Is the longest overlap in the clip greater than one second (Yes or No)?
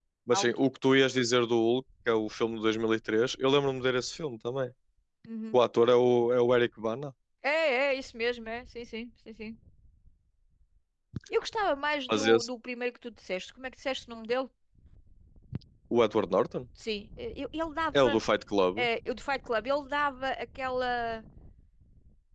No